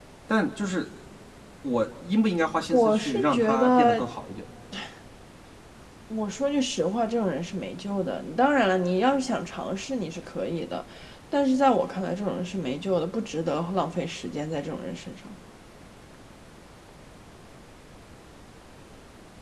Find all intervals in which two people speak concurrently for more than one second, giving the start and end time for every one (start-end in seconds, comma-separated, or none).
2.7-4.1